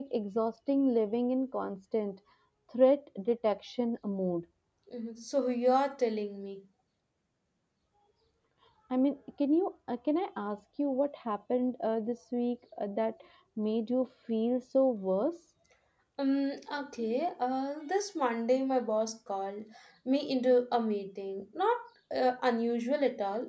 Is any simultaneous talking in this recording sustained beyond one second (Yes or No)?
No